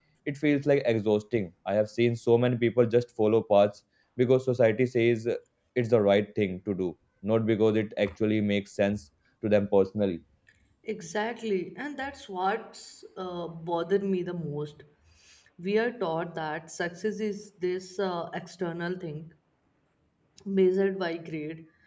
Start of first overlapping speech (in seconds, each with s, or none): none